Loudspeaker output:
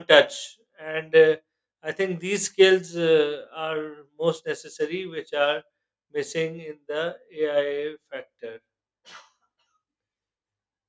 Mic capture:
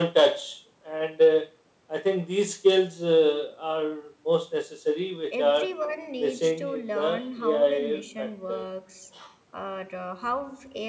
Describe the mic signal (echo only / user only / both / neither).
both